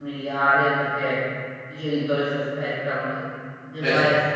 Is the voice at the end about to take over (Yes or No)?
No